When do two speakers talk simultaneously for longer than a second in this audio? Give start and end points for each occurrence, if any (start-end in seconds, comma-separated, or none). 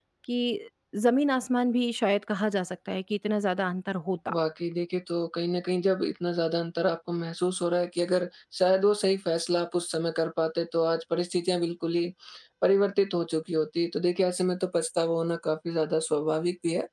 none